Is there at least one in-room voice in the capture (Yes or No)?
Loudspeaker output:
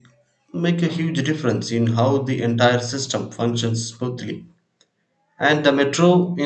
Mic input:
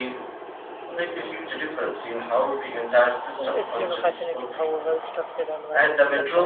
Yes